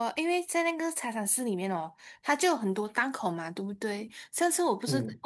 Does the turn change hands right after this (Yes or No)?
No